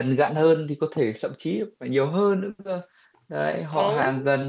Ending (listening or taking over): listening